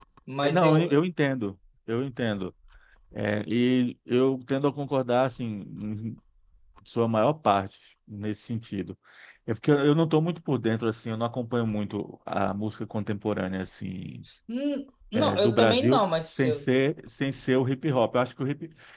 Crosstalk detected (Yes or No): Yes